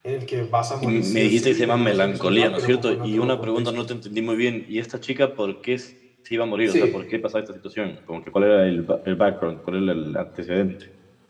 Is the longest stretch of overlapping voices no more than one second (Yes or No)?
No